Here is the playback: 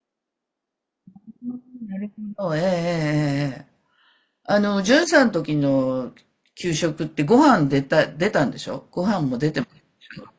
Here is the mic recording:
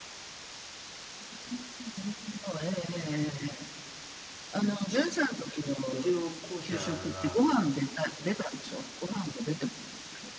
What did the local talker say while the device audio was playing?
うちの校舎が、

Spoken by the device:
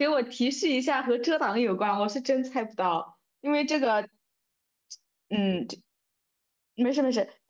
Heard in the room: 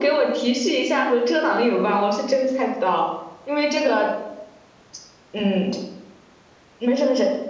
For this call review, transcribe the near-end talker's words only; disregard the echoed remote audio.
none

